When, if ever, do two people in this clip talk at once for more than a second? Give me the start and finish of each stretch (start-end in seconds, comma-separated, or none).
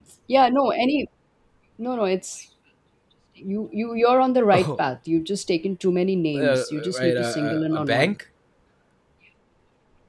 6.4-8.1